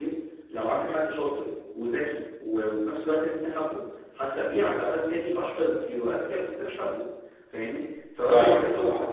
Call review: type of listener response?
listening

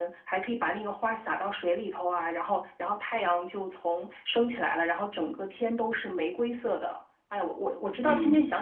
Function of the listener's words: taking over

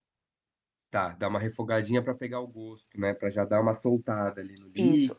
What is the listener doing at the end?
taking over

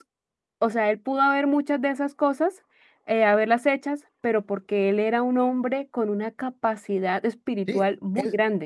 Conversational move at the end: taking over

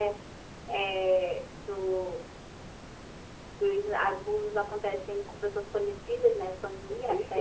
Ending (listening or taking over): taking over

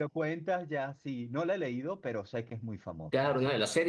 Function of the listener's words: taking over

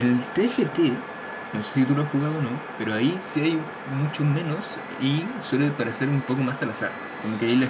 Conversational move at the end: listening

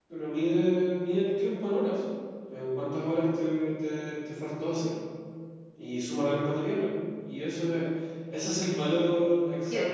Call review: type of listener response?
taking over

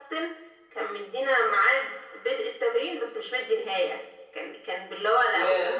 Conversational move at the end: listening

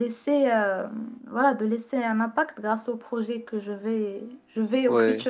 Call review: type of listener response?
listening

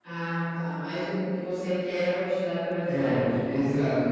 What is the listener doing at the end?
taking over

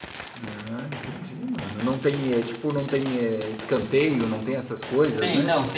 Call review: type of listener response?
taking over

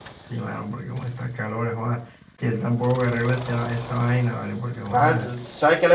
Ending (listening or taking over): taking over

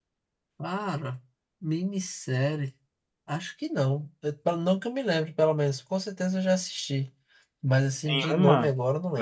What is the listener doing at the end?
taking over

